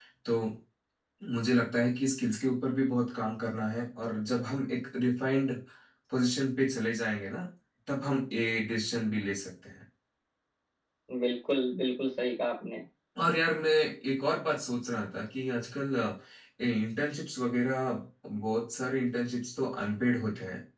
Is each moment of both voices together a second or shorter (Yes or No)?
Yes